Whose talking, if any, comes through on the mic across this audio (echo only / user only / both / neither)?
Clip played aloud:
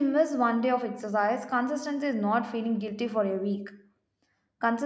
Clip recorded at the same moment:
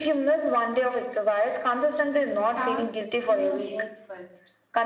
both